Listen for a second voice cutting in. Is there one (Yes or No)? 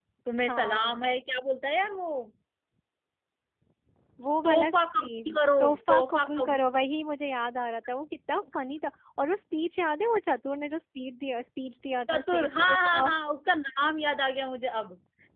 Yes